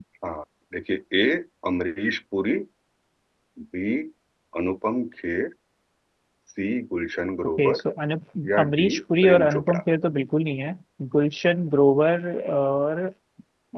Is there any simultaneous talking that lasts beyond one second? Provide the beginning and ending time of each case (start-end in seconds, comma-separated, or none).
8.6-9.8